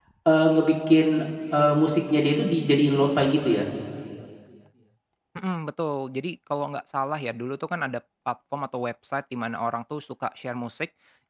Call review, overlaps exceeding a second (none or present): none